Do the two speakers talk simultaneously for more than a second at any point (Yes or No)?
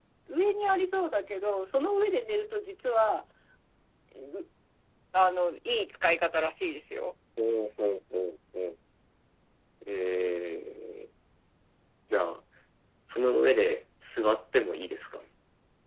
No